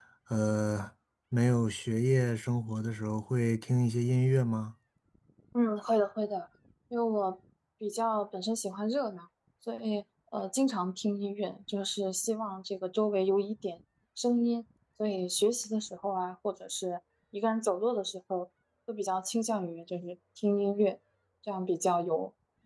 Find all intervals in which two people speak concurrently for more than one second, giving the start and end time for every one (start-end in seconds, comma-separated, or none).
none